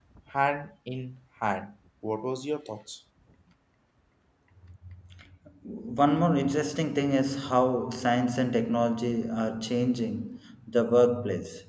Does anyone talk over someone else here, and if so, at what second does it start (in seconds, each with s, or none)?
none